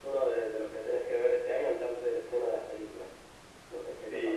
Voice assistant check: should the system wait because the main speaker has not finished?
No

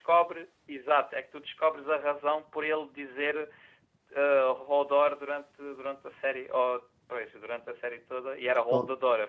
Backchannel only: No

